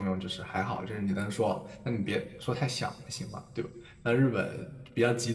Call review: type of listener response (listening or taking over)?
listening